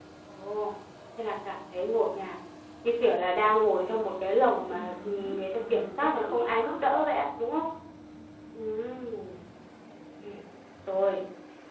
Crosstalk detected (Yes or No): Yes